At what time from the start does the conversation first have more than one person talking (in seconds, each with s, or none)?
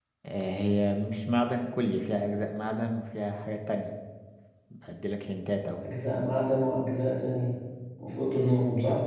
none